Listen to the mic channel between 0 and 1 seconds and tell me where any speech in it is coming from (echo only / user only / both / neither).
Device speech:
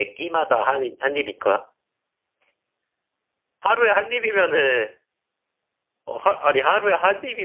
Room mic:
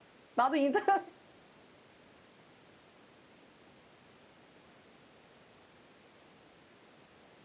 user only